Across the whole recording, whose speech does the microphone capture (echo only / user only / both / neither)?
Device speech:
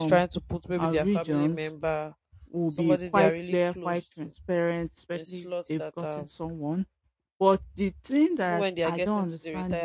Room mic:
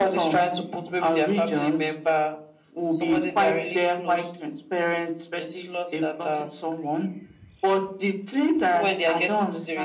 echo only